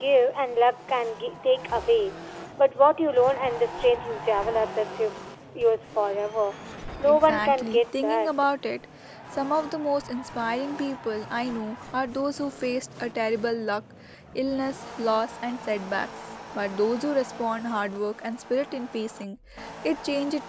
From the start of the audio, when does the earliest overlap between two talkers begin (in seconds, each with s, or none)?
7.1 s